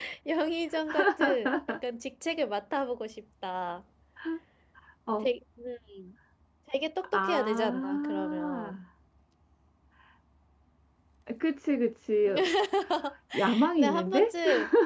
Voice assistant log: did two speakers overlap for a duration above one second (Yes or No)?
Yes